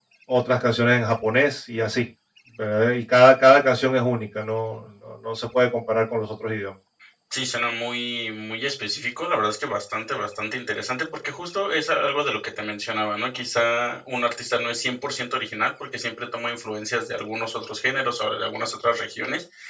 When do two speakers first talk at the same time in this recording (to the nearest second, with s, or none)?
none